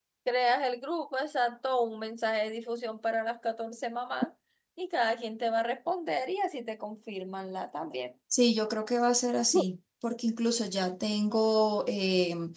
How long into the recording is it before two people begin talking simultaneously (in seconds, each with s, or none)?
none